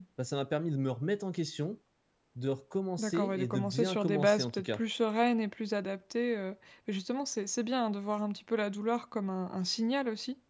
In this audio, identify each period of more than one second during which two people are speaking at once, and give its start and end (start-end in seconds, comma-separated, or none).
3.0-4.8